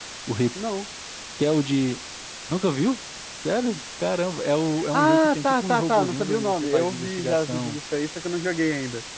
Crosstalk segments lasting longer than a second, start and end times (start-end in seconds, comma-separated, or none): 4.9-7.8